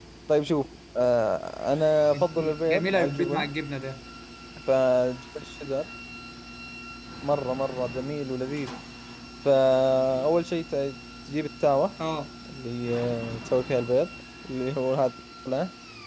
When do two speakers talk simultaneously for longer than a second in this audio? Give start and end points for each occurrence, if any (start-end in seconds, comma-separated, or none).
2.1-3.5